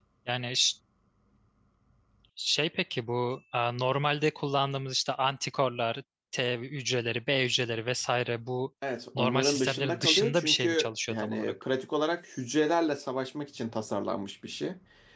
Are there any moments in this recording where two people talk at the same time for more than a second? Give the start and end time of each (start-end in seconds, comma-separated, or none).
9.2-11.5